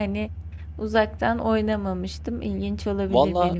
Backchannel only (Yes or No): No